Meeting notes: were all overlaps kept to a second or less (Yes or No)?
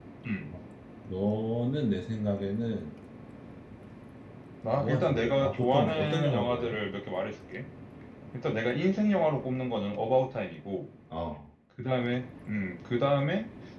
No